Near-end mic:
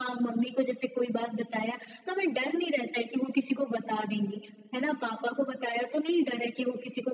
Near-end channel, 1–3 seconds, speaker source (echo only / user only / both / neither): echo only